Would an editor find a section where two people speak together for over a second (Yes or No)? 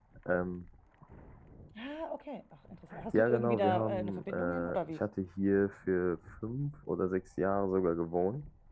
Yes